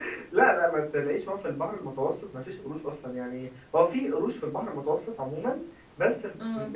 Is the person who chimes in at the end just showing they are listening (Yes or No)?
Yes